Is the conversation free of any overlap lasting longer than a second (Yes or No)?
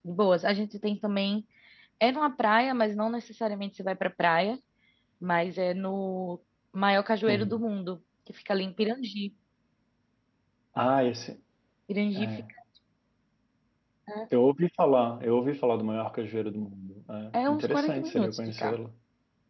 No